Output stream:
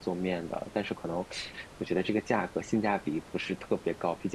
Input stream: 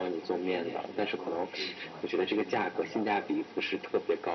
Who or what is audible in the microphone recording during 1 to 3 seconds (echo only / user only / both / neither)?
both